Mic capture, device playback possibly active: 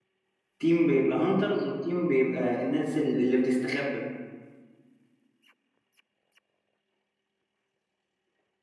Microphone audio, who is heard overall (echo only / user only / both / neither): user only